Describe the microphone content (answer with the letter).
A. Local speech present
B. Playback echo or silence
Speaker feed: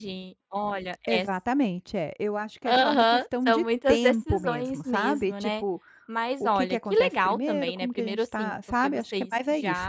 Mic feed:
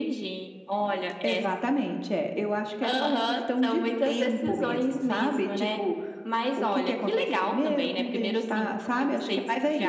B